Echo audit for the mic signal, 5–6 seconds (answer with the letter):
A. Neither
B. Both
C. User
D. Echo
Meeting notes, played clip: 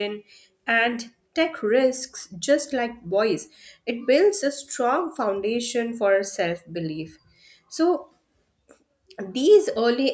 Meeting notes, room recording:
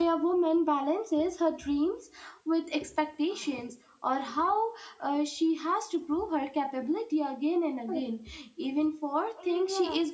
C